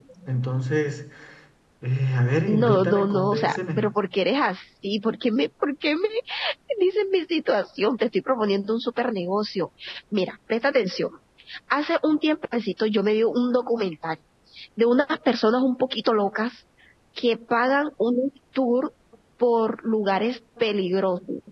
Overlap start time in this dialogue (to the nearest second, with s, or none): 2 s